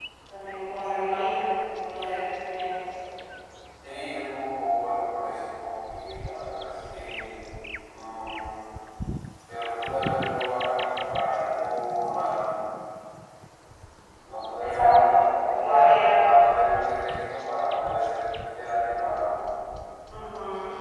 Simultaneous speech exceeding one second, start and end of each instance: 14.6-16.2

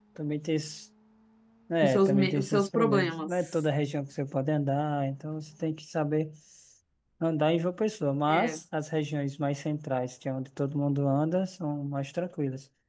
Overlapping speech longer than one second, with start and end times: 1.8-3.3

